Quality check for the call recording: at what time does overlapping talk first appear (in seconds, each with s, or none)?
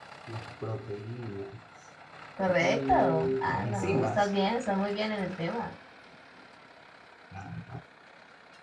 2.6 s